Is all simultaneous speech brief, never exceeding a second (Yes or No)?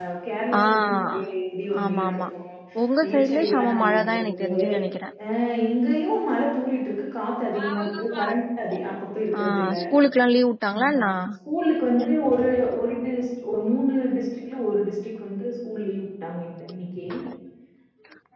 No